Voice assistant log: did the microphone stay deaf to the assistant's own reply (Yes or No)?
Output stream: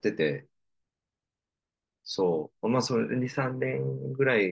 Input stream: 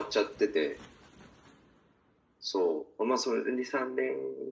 No